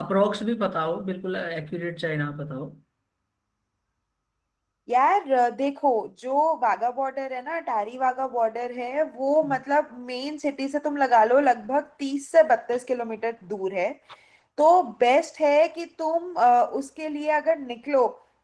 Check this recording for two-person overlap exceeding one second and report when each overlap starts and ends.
none

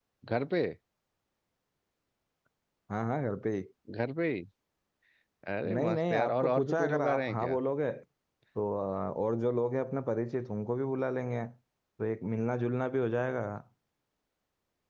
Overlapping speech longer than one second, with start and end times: 5.7-7.6

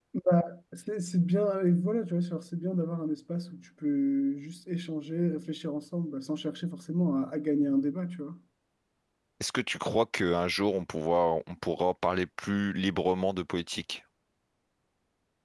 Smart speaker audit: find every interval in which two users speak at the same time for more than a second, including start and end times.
none

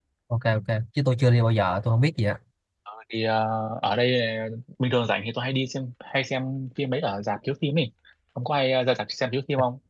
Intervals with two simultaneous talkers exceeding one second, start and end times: none

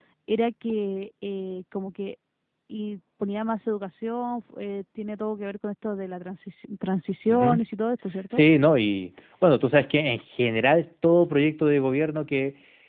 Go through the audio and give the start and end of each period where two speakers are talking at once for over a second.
none

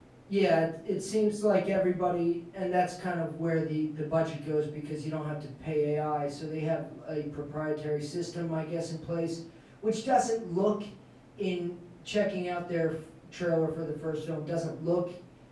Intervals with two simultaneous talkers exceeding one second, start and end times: none

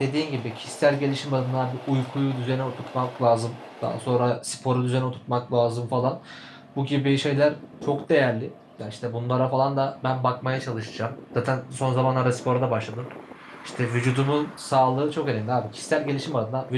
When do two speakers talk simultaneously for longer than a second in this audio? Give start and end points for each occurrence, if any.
none

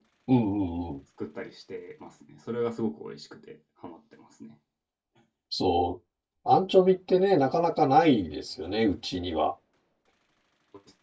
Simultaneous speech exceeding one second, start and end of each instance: none

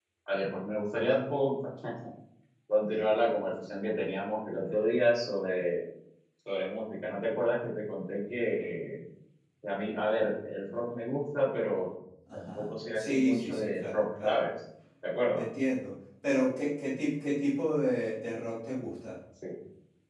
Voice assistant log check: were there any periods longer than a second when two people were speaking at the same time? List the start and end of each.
12.3-14.5

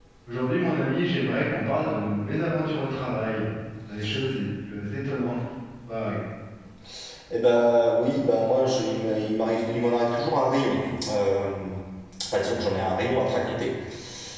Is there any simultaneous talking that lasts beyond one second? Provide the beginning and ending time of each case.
none

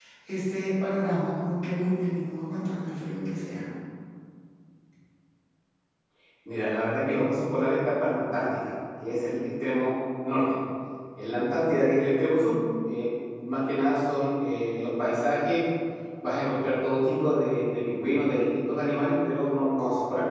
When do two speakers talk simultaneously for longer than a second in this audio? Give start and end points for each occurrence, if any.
none

